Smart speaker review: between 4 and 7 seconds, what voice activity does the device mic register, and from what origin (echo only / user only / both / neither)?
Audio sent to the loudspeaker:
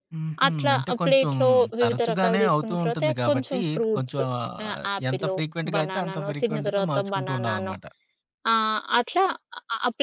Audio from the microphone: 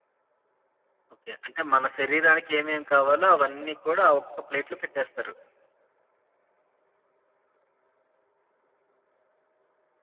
user only